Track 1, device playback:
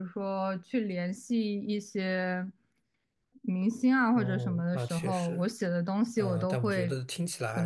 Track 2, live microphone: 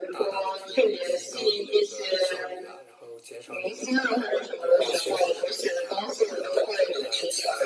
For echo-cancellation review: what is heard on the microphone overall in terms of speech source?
both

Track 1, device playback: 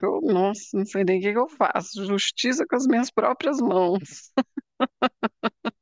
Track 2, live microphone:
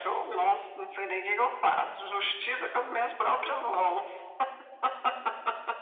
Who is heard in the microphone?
echo only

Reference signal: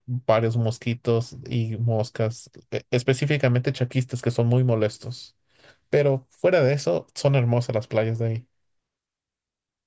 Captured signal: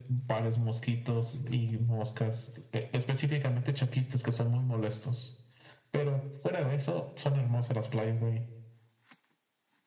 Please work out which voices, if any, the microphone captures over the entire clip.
echo only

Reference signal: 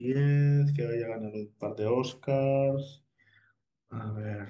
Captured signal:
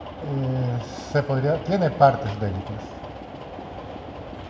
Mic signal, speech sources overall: user only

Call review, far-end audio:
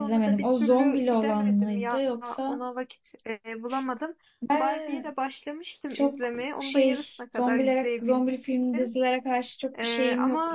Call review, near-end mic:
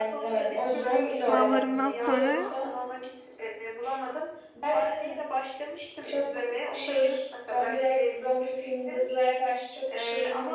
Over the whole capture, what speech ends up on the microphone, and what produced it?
both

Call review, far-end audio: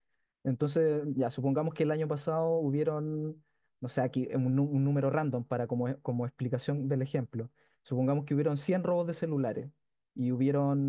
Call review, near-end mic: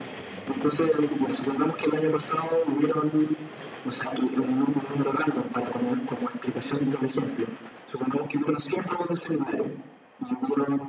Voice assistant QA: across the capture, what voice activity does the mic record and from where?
echo only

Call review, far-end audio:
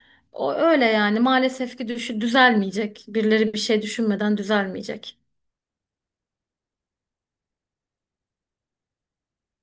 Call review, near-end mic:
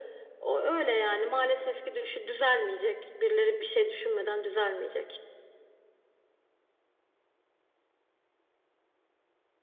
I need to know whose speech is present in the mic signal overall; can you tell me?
echo only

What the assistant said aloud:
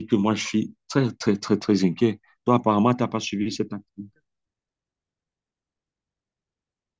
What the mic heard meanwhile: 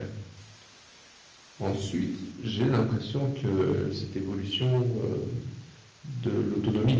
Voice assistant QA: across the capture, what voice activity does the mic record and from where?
user only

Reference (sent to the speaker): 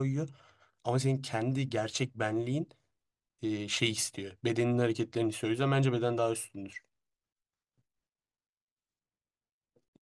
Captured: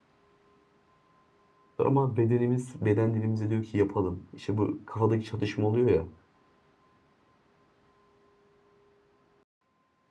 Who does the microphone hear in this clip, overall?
user only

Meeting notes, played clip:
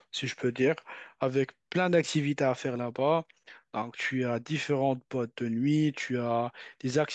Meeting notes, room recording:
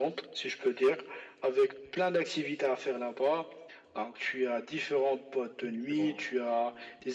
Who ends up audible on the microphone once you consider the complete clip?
both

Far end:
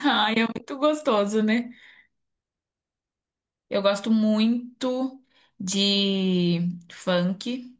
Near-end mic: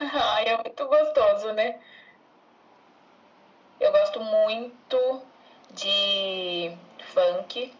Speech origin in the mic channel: echo only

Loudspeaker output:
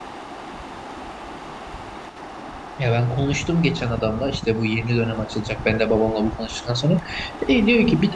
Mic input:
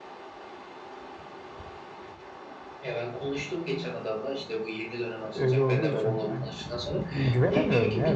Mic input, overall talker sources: both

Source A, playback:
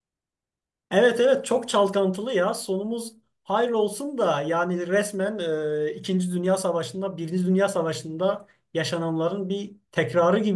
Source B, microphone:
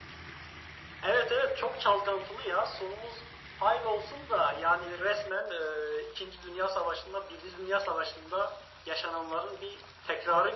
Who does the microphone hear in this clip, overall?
echo only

